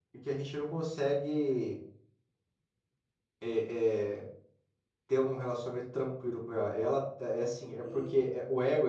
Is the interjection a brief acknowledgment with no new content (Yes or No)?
Yes